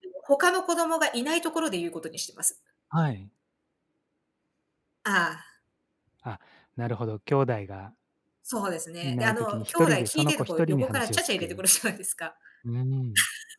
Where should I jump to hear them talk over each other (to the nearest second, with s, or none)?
9 s